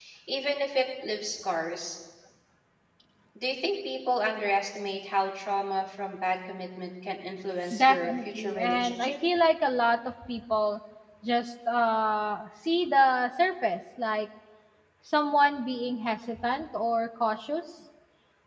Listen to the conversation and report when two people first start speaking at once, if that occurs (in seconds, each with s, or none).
7.7 s